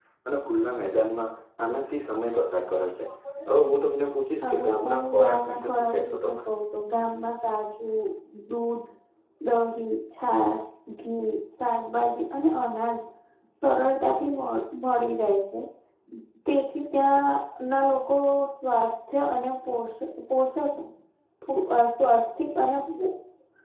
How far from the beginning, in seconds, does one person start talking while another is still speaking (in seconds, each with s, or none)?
4.4 s